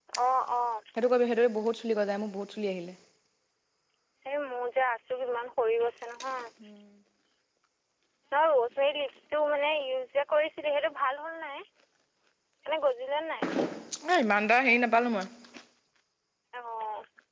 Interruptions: none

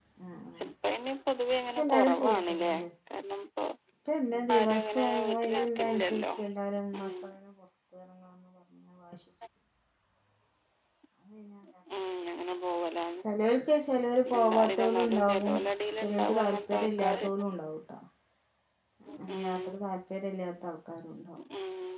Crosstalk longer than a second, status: present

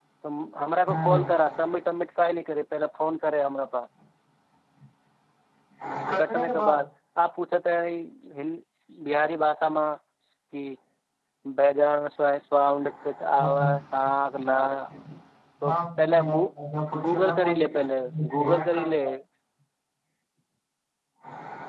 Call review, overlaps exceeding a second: present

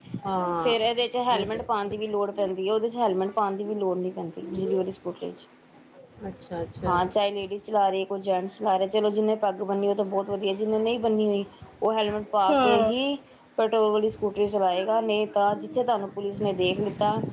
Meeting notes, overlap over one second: none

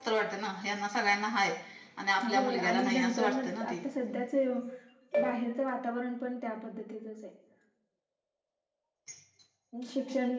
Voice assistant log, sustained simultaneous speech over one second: present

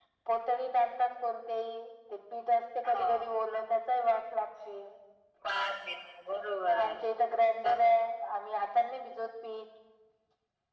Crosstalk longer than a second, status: none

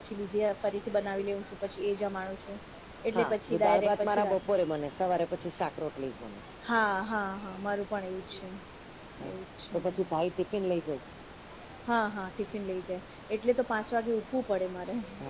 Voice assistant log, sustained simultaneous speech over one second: present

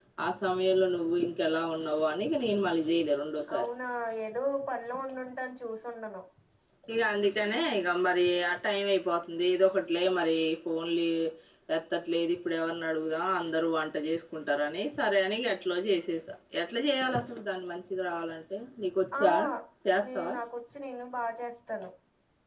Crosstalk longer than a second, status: none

